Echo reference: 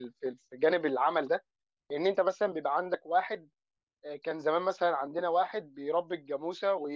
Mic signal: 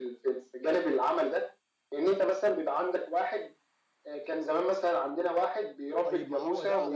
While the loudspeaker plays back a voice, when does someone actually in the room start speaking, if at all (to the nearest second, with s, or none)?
6 s